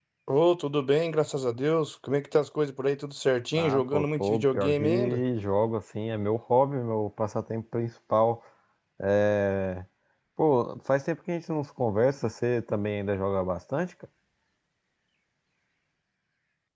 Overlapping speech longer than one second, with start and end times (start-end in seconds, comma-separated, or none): 3.5-5.2